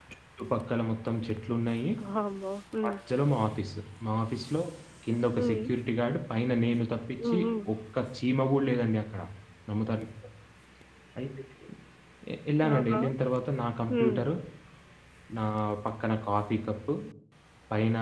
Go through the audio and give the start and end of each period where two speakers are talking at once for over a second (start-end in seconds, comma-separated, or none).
none